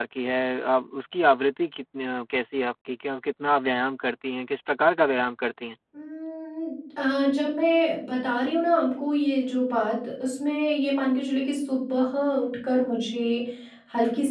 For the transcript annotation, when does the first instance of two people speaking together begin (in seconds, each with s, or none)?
none